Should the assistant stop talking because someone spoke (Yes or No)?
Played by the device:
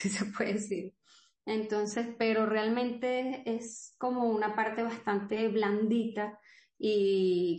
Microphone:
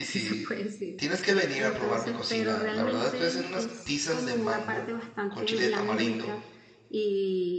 Yes